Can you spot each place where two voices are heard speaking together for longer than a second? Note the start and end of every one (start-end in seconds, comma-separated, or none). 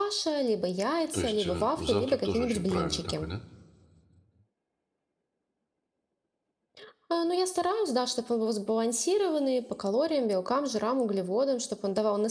1.1-3.3